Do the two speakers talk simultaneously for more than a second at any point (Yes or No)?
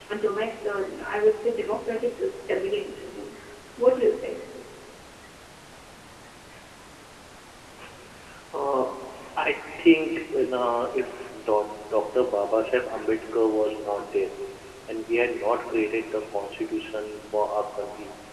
No